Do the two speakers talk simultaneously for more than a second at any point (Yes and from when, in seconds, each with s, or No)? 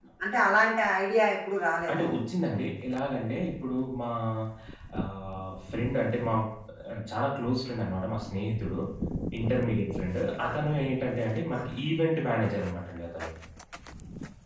No